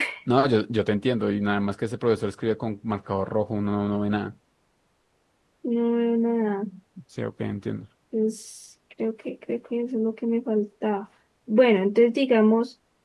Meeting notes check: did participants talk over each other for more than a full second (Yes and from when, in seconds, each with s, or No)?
No